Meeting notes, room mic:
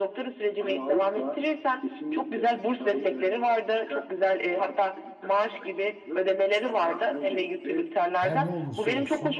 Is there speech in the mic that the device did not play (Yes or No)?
Yes